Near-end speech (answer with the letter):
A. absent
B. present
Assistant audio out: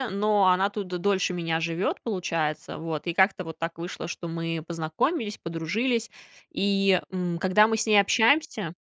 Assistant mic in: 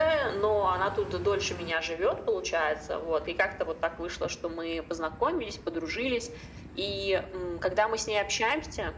A